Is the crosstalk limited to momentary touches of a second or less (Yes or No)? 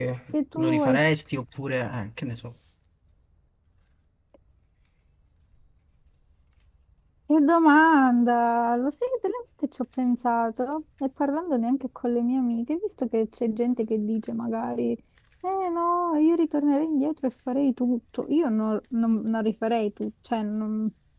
Yes